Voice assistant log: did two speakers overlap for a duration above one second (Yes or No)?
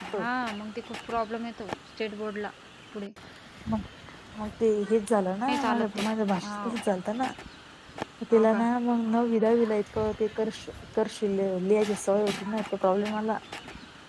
No